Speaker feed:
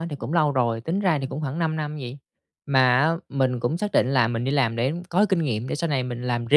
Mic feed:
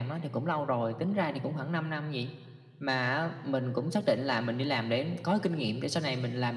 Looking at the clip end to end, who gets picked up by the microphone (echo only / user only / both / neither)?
echo only